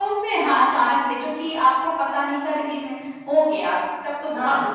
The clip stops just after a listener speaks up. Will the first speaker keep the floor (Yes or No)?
Yes